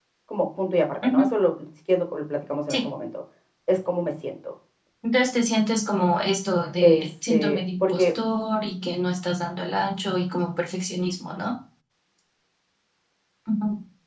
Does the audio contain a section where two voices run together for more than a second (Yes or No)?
Yes